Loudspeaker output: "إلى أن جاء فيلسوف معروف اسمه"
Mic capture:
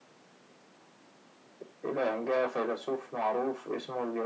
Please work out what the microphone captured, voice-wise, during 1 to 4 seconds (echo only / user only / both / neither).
echo only